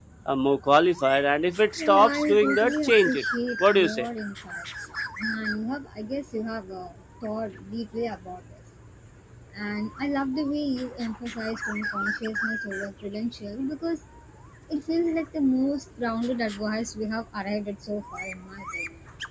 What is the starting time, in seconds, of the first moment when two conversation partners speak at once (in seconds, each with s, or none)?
1.8 s